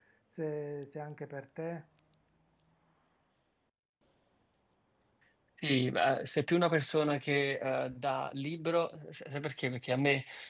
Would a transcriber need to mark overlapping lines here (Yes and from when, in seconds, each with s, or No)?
No